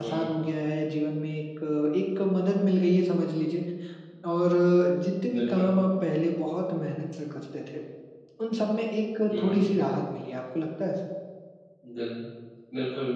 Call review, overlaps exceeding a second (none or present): none